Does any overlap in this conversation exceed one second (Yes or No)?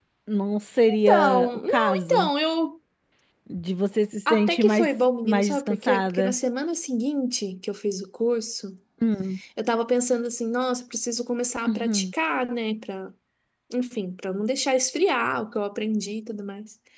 Yes